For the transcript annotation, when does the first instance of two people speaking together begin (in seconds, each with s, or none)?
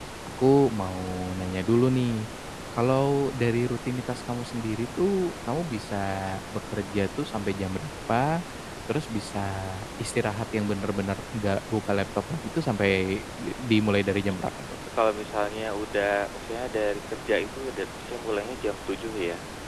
none